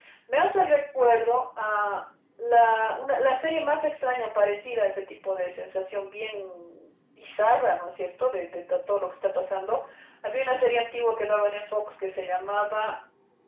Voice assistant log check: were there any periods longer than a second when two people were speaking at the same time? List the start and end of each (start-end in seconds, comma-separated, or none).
none